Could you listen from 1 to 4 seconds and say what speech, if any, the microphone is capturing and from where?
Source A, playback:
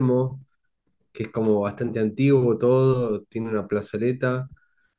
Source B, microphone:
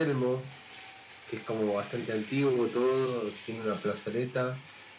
echo only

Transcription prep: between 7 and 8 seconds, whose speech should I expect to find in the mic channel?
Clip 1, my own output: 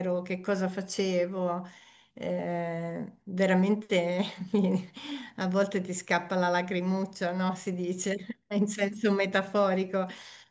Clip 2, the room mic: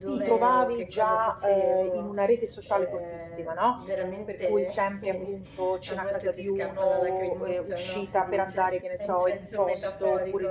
both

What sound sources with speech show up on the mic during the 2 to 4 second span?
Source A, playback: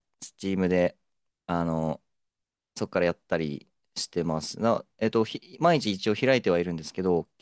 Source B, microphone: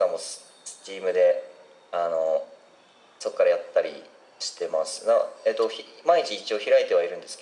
echo only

